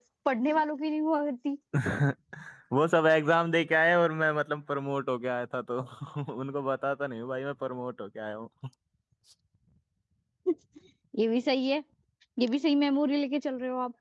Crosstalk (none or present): none